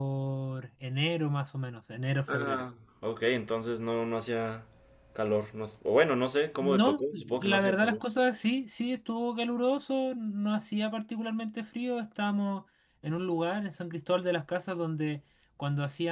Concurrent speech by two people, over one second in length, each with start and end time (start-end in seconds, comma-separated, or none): 6.6-8.0